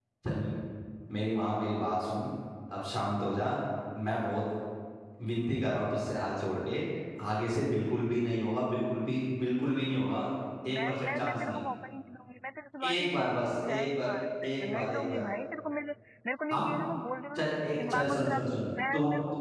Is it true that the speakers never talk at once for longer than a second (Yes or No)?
No